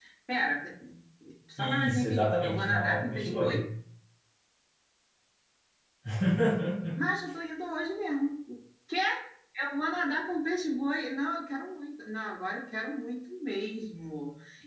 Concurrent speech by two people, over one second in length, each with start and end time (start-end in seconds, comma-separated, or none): 1.6-3.6